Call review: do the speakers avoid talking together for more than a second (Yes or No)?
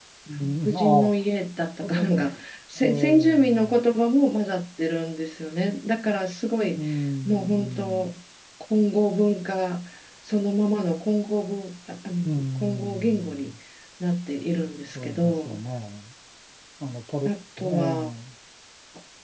No